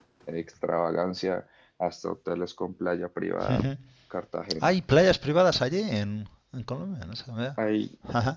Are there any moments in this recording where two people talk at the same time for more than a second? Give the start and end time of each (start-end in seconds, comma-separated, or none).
none